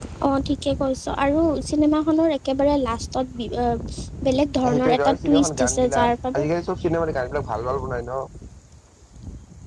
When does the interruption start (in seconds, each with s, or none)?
4.6 s